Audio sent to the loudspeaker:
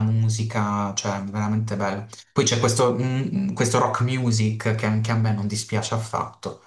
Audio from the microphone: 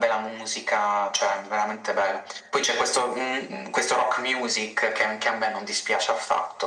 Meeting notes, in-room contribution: none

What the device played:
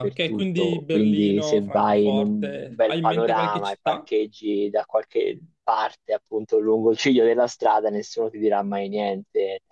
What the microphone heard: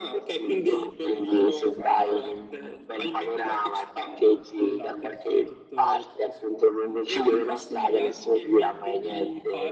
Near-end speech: present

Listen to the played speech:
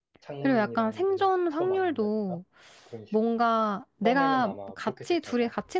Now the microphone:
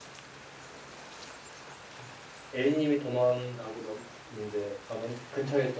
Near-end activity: present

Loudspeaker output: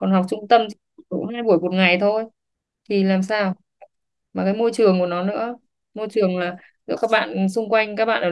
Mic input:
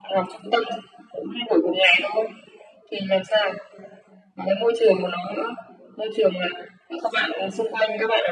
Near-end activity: none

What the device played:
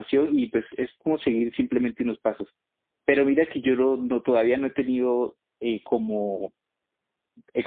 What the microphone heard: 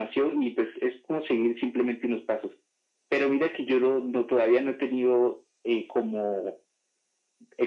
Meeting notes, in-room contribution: none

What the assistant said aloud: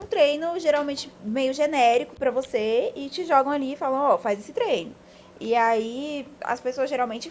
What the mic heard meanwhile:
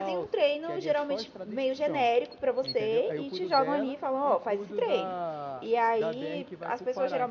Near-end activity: present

